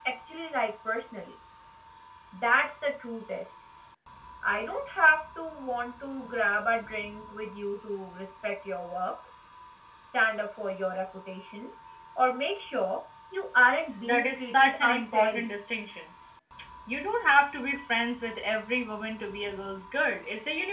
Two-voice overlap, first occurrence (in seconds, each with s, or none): 14.0 s